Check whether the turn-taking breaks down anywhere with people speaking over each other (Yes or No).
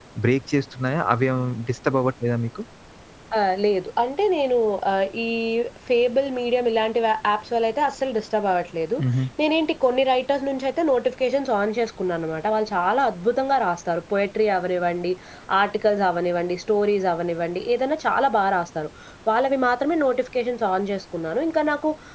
No